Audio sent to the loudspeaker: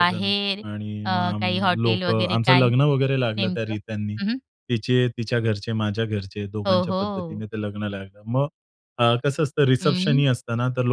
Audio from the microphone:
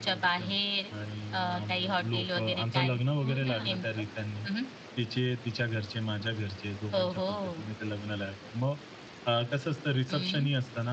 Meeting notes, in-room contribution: present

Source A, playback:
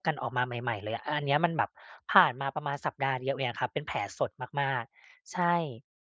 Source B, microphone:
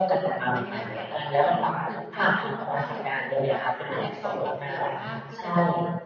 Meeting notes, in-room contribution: present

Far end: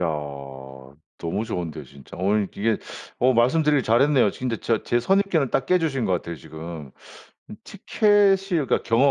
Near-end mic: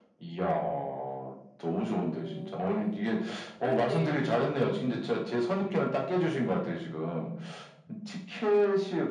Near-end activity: present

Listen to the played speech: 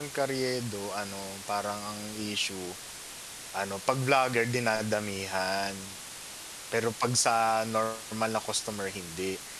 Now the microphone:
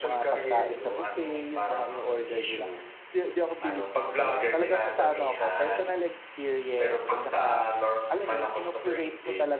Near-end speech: present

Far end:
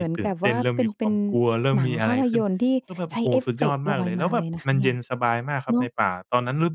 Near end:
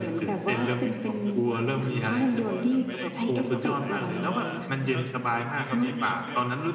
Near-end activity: present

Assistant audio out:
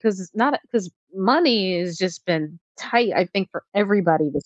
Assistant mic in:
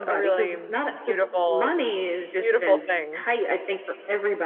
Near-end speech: present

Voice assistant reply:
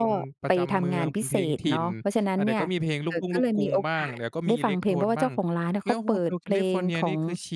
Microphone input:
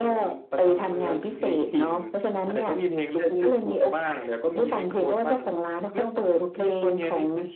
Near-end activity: none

